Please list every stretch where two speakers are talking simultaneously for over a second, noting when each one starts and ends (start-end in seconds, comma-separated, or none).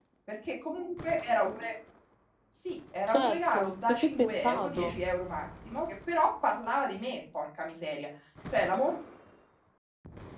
3.1-5.0